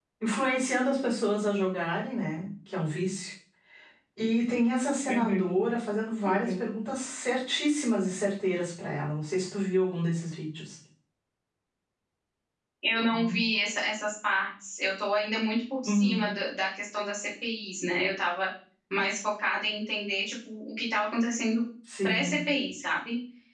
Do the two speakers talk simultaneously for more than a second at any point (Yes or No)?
No